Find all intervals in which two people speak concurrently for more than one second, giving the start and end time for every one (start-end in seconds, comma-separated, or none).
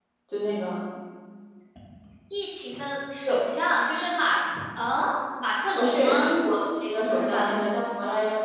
none